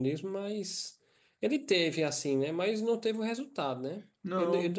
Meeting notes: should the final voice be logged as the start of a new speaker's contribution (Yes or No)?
No